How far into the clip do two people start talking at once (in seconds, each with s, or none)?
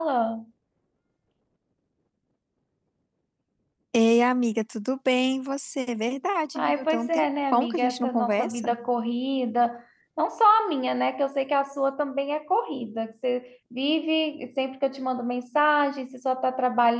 6.5 s